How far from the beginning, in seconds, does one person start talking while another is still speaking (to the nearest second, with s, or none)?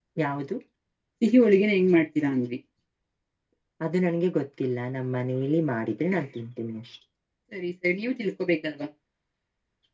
none